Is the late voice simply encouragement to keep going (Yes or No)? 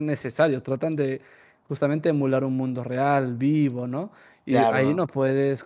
Yes